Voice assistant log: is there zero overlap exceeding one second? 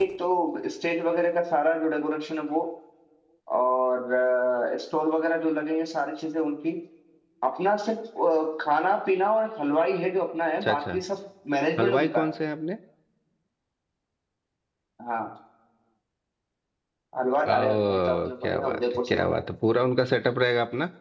No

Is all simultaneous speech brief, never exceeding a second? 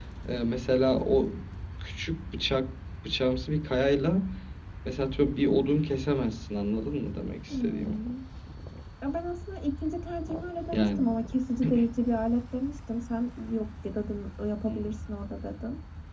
Yes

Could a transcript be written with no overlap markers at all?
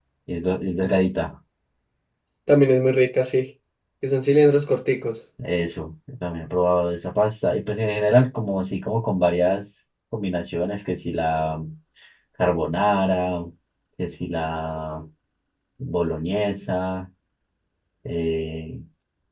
Yes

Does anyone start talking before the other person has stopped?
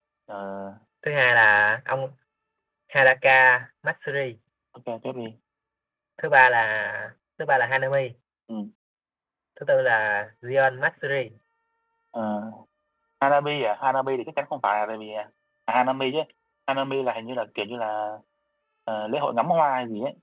No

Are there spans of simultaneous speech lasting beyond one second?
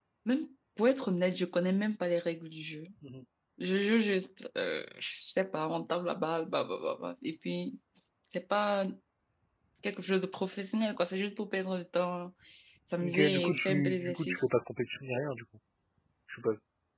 Yes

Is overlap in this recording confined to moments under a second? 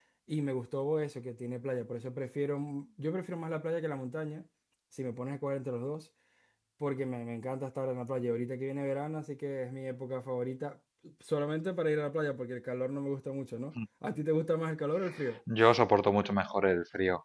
Yes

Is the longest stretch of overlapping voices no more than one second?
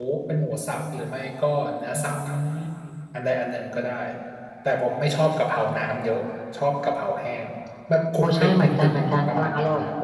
No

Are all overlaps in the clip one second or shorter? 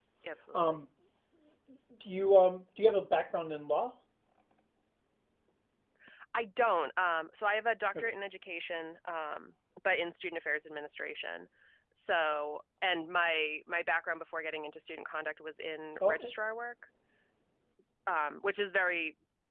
Yes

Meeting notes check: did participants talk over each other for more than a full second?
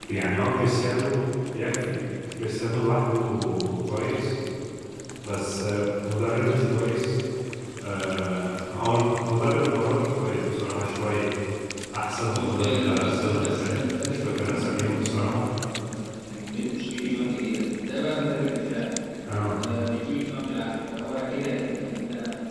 Yes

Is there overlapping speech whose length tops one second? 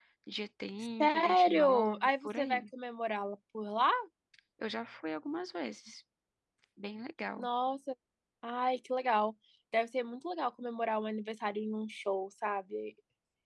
Yes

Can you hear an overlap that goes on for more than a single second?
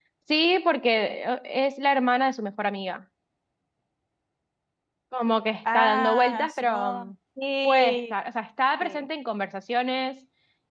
Yes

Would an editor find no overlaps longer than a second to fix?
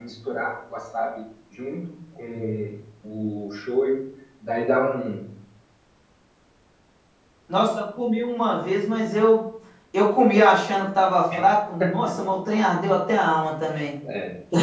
Yes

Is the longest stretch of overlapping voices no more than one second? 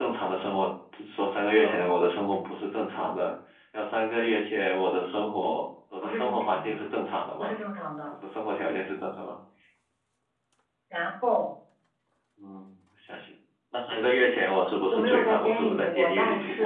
No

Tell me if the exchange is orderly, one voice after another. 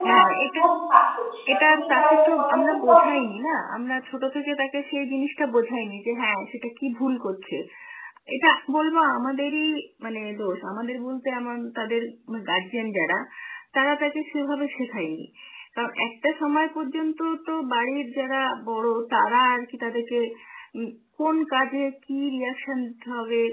No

